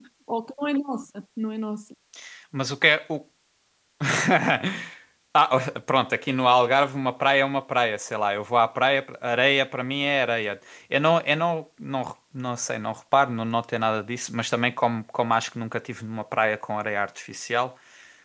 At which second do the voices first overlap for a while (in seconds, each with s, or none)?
none